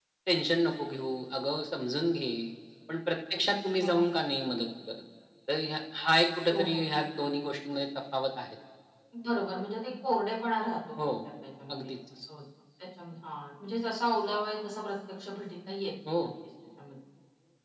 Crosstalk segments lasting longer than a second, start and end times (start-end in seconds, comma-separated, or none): none